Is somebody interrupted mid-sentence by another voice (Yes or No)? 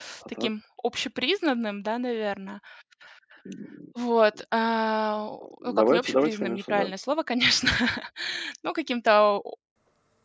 Yes